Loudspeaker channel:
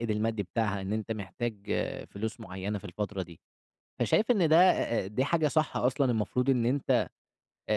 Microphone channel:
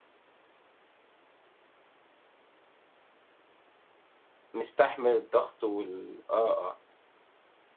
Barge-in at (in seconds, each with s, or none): 4.5 s